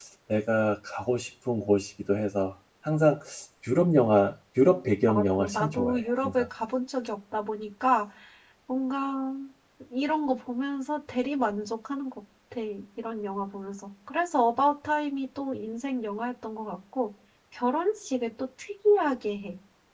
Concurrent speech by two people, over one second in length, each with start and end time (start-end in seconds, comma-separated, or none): 5.1-6.4